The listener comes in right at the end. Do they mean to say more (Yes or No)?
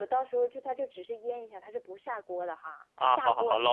Yes